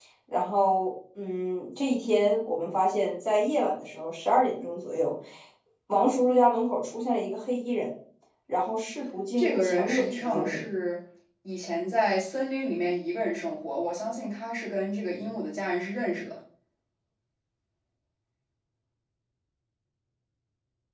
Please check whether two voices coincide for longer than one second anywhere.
Yes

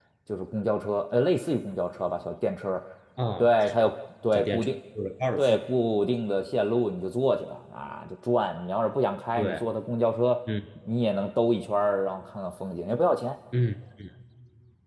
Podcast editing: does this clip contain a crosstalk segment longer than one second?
No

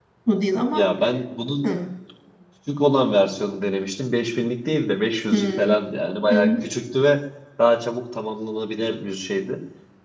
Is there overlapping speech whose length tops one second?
No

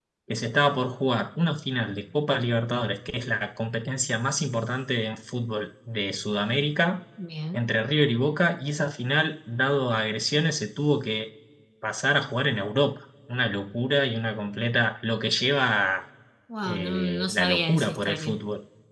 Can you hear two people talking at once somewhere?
Yes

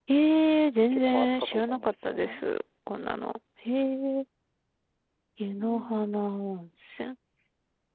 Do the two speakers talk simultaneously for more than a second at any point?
Yes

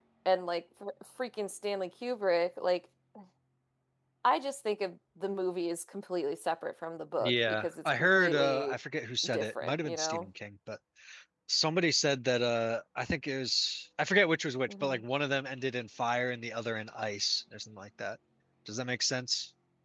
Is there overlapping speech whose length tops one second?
Yes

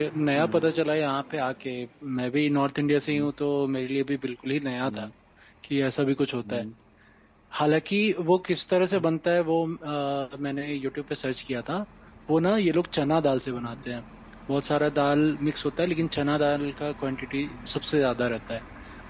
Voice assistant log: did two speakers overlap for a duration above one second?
No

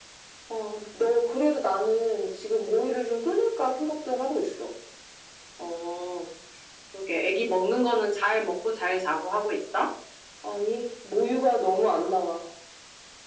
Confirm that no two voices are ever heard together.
Yes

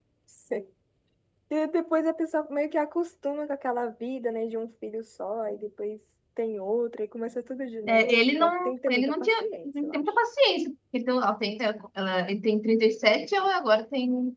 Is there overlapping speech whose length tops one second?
Yes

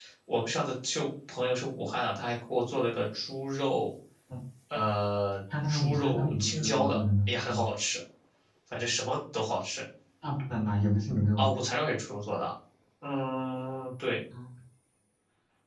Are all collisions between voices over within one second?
No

